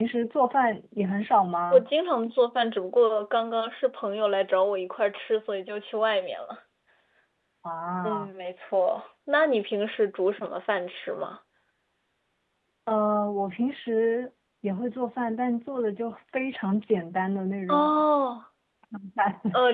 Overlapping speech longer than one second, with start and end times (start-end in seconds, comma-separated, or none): none